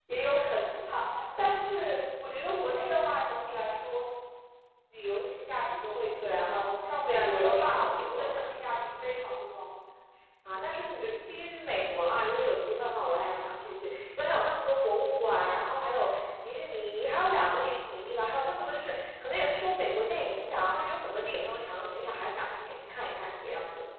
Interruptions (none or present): present